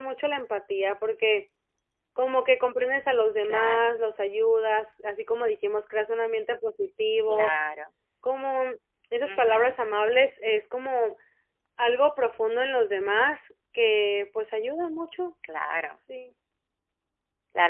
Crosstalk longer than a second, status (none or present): none